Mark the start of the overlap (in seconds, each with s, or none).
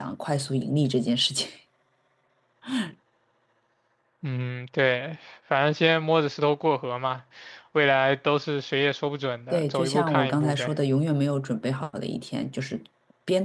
9.5 s